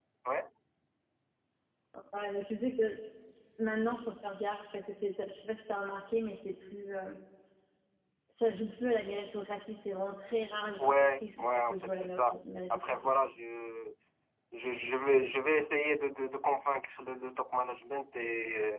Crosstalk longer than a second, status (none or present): present